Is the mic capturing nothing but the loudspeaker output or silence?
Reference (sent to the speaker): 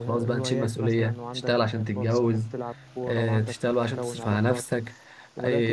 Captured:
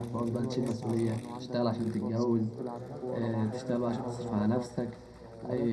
No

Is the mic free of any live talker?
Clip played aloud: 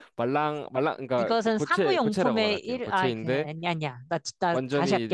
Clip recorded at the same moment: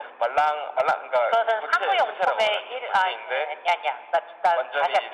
Yes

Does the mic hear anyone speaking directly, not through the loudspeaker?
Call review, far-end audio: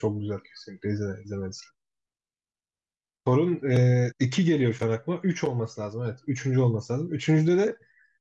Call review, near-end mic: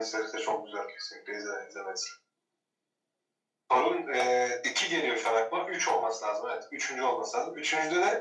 No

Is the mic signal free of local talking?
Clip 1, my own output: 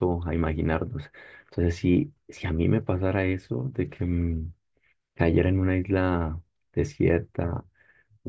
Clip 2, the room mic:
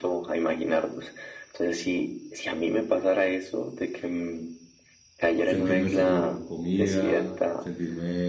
No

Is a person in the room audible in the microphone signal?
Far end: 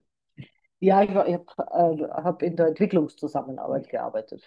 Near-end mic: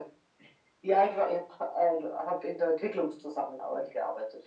No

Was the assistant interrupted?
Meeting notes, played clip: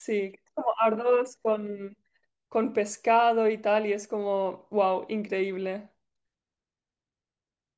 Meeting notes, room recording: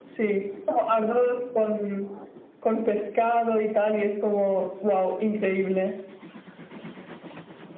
No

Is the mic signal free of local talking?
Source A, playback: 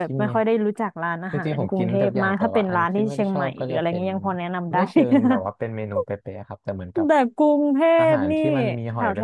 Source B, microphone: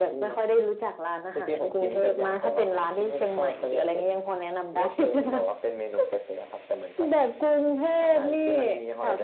Yes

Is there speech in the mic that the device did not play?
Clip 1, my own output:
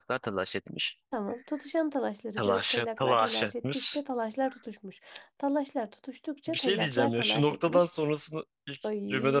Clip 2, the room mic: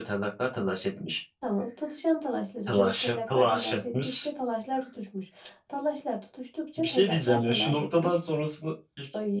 No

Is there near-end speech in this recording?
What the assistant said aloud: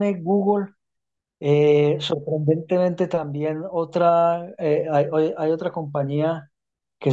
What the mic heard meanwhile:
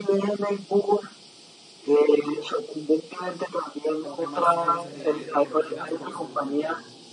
Yes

